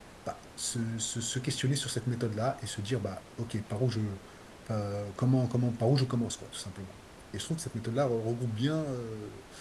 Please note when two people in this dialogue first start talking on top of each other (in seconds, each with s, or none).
none